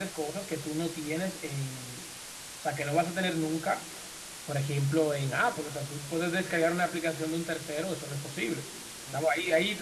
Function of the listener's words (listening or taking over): listening